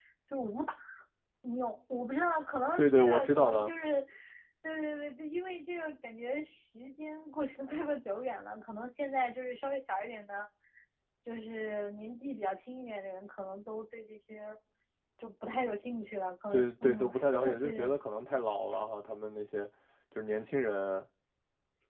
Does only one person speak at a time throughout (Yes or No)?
No